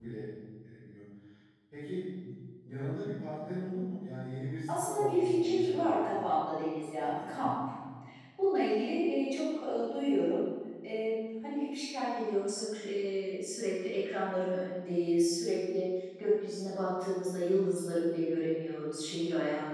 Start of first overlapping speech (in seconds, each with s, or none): 4.7 s